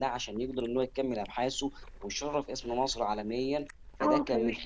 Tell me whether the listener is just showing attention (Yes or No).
No